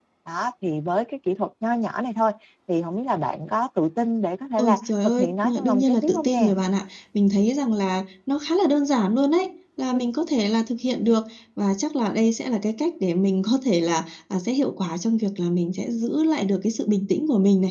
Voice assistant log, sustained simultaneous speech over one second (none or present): present